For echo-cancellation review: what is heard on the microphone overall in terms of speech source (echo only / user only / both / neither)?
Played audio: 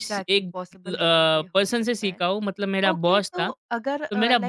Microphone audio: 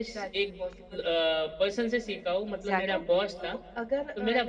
both